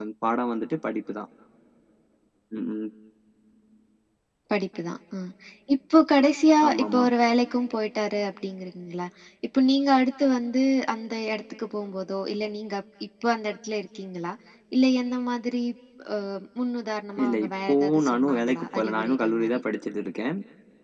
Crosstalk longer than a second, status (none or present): present